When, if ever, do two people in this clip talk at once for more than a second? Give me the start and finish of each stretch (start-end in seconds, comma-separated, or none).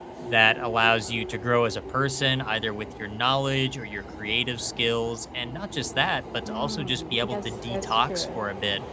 6.5-8.4